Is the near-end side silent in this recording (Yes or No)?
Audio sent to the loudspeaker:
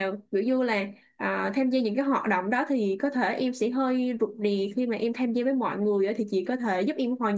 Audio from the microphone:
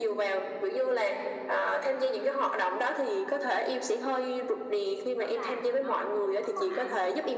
No